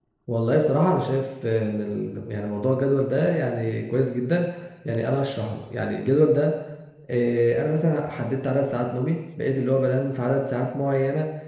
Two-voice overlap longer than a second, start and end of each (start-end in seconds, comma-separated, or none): none